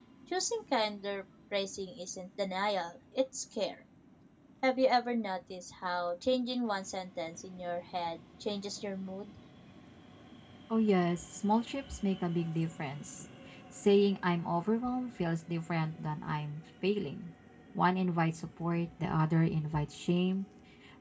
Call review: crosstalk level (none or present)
none